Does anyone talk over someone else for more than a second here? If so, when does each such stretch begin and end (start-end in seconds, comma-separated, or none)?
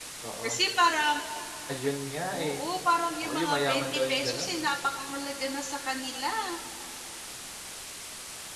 3.2-4.5